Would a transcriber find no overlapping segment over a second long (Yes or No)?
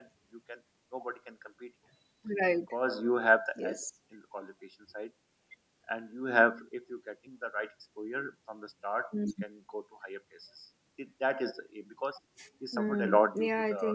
No